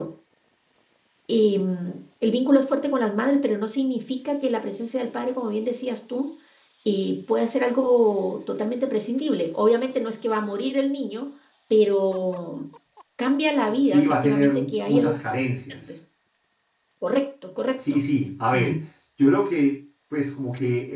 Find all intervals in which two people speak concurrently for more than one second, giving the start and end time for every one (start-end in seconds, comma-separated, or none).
13.8-15.2